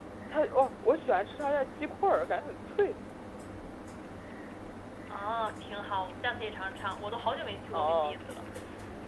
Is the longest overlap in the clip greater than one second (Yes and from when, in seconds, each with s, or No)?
No